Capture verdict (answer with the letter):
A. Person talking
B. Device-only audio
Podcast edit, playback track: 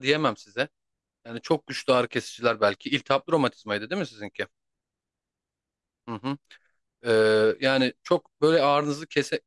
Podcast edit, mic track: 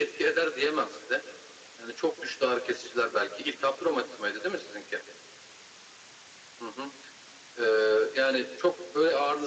B